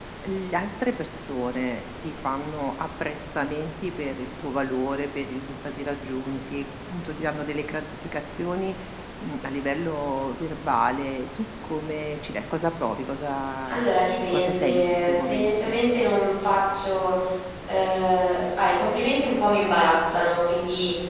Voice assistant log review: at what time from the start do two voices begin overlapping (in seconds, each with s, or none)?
14.3 s